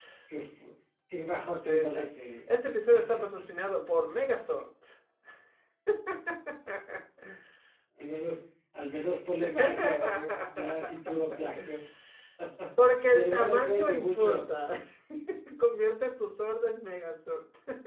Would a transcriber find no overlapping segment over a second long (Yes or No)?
No